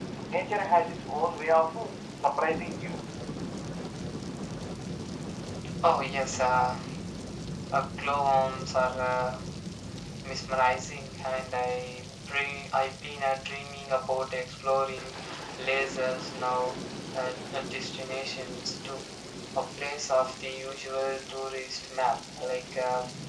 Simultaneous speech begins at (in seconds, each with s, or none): none